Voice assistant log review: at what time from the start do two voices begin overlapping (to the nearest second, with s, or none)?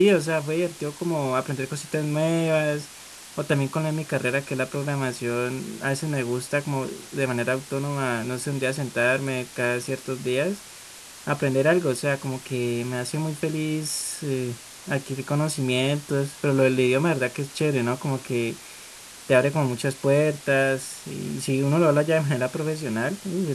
none